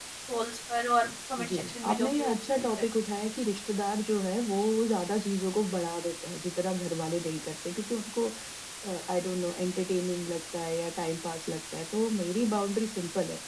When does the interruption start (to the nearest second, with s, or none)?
1 s